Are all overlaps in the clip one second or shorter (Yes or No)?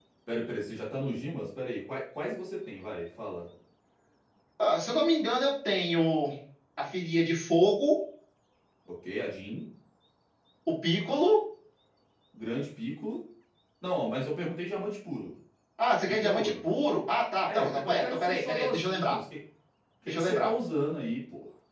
No